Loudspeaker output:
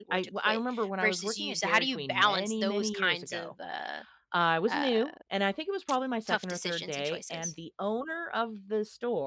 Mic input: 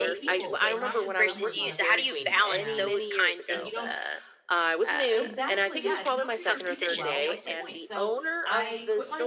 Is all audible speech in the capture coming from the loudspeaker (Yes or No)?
No